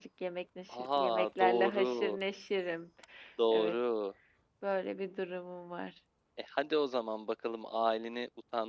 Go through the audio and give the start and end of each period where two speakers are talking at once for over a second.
0.7-2.2

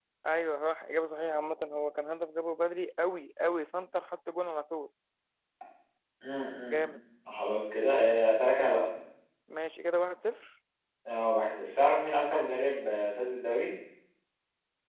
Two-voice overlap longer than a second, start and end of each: none

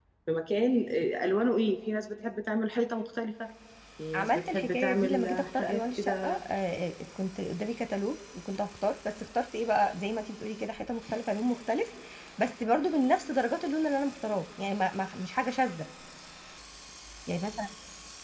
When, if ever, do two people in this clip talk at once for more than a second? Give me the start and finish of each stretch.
4.1-6.4

